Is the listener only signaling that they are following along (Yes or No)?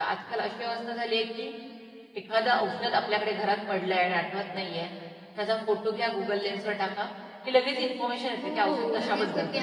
No